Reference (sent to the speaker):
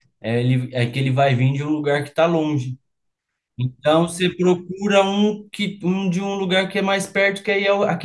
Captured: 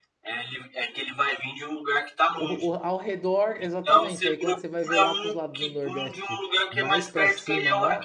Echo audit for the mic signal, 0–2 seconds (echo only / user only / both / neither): echo only